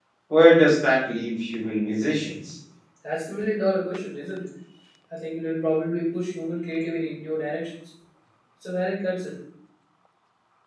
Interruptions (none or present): none